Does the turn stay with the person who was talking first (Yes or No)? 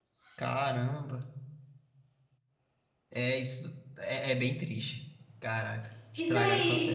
No